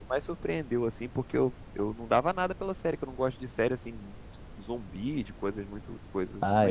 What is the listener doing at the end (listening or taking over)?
taking over